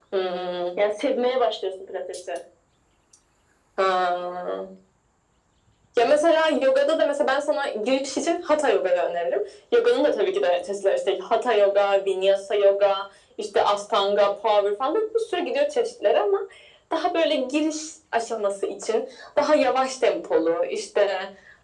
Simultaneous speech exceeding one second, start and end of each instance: none

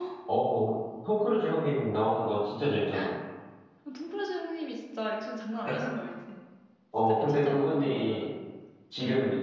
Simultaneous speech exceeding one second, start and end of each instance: 7.1-8.3

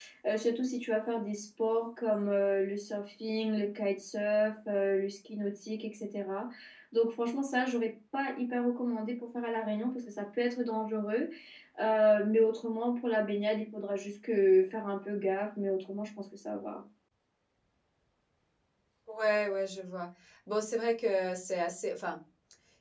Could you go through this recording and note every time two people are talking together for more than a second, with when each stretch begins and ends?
none

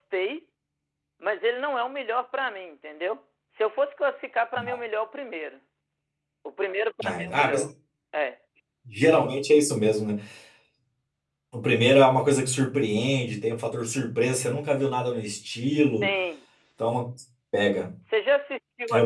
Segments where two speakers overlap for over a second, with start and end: none

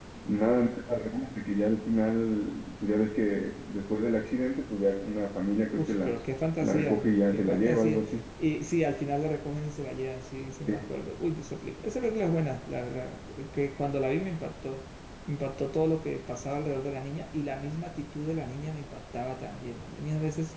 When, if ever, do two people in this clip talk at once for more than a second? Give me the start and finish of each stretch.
6.6-8.2

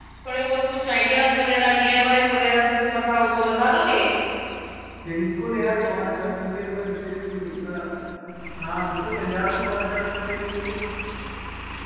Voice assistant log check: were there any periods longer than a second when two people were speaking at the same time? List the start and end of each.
none

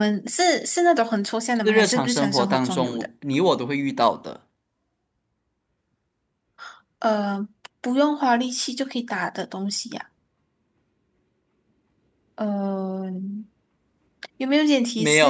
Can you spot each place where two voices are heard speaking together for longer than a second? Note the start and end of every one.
1.6-3.0

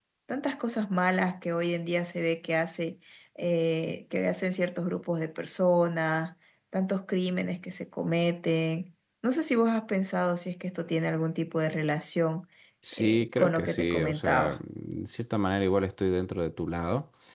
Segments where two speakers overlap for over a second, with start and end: 12.9-14.6

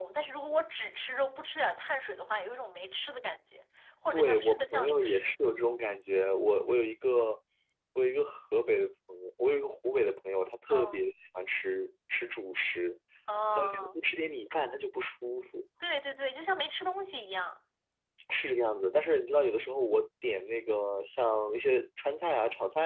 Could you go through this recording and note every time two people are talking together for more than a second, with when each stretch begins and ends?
4.1-5.3

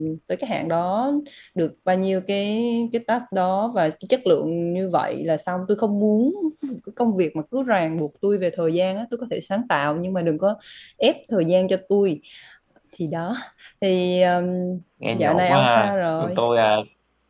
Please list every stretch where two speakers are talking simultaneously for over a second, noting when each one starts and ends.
15.1-16.4

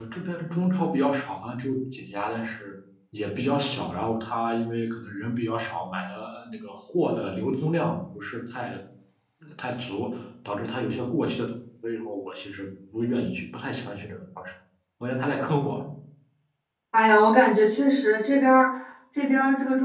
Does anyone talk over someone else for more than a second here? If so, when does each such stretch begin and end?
none

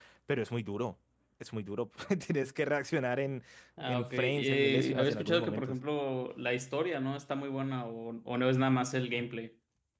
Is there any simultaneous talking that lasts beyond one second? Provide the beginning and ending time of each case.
3.8-5.8

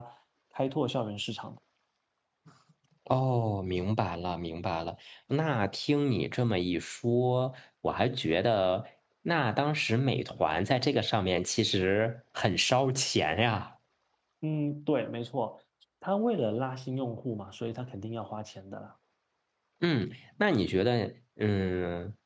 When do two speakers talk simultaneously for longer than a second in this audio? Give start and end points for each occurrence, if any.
none

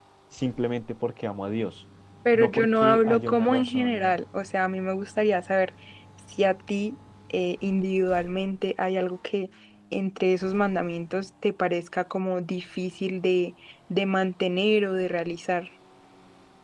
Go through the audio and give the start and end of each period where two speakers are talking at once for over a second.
2.3-4.2

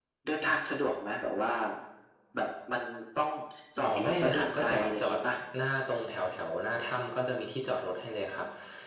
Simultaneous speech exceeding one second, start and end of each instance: 3.8-5.2

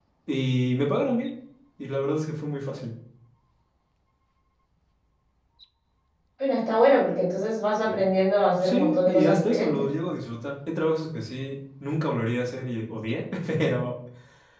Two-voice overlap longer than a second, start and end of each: 8.6-9.8

